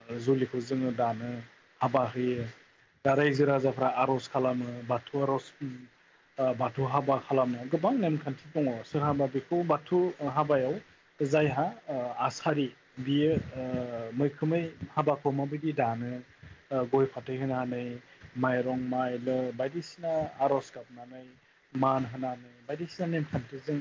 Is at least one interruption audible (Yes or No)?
No